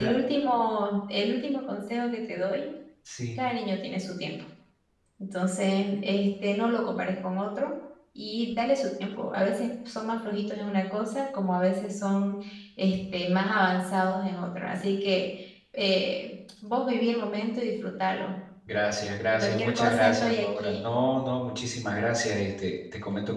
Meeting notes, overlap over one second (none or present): present